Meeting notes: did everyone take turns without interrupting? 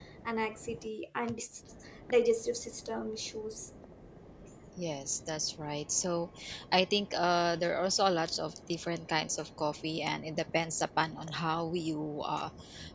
Yes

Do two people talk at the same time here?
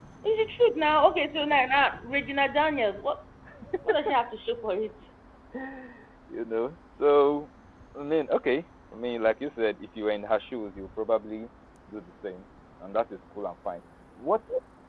No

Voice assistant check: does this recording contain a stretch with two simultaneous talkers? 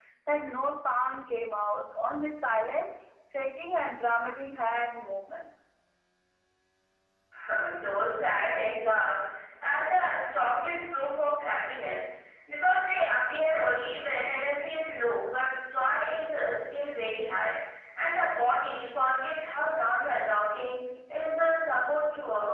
No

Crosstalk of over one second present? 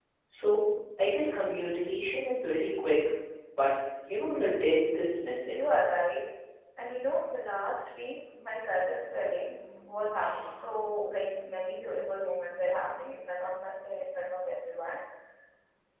No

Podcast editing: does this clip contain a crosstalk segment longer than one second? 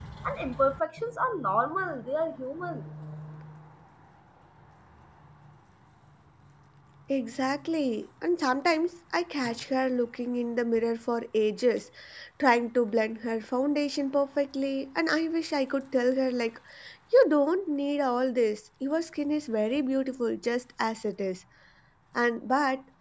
No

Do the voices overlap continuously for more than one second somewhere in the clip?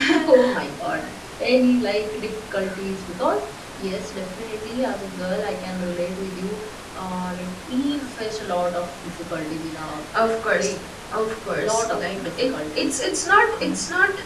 Yes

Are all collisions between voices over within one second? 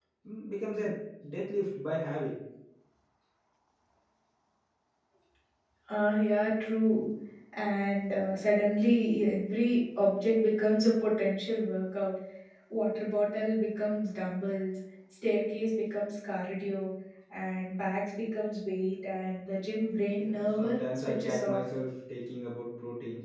No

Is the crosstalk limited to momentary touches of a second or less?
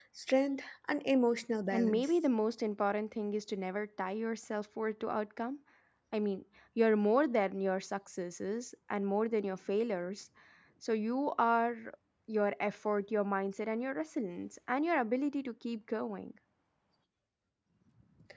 Yes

